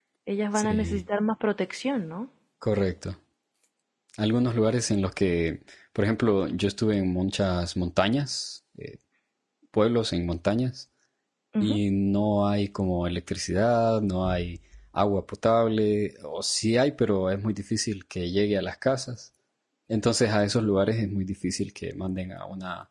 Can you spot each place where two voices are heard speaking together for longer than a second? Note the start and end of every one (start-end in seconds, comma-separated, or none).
none